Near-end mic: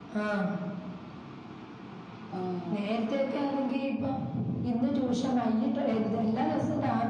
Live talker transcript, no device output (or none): ഉം